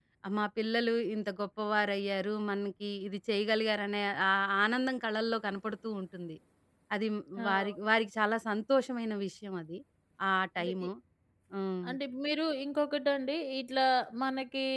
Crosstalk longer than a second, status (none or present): none